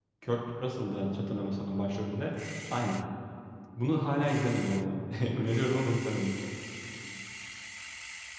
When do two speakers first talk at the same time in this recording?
none

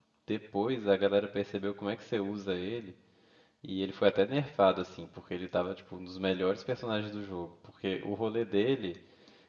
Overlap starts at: none

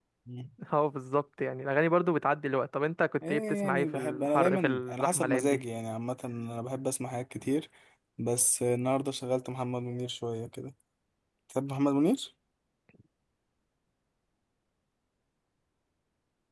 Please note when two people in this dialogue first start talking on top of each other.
3.2 s

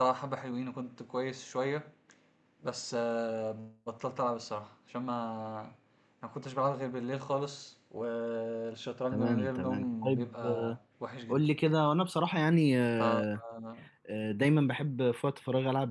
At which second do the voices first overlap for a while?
9.1 s

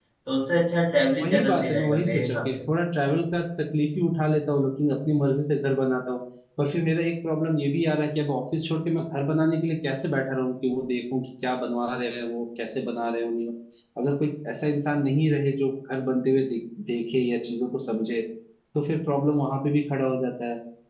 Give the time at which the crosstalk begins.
1.2 s

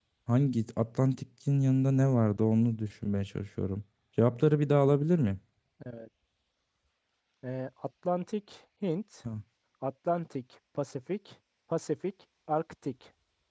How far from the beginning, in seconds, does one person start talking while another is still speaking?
none

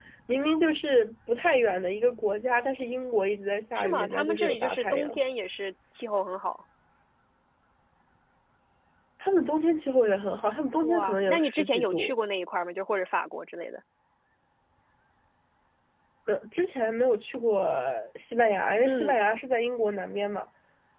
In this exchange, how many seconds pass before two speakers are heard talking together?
3.8 s

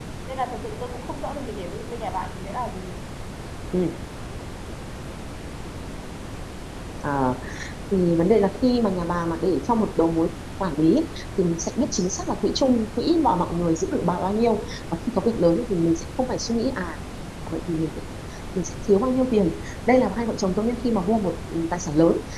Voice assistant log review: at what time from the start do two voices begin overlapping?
none

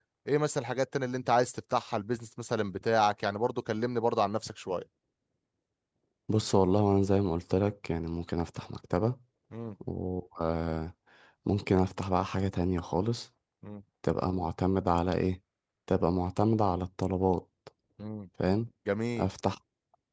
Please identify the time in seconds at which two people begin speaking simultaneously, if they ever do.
none

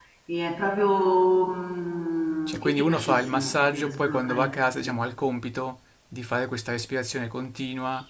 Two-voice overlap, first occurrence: 2.5 s

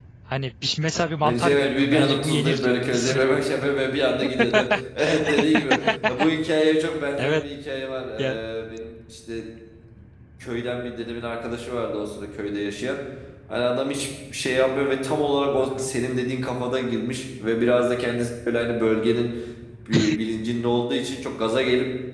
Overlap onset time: 1.2 s

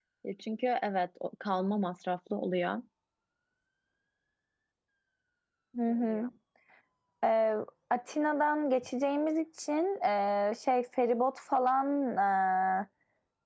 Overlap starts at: none

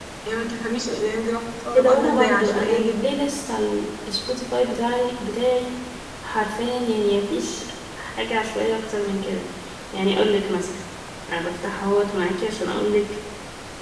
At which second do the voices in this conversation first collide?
1.7 s

